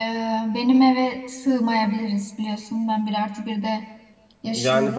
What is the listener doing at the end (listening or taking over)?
taking over